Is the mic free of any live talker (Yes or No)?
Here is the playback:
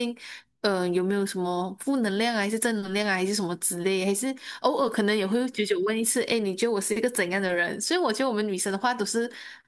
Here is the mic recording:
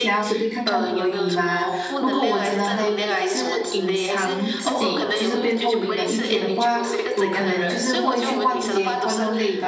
No